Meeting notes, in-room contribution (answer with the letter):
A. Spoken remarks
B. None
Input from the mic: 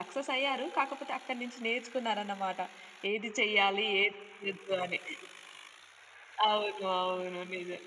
B